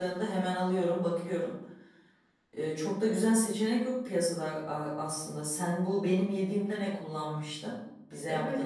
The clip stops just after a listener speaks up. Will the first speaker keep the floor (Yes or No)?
No